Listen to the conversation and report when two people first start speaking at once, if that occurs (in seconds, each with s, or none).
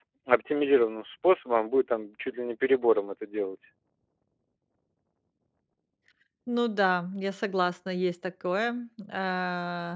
none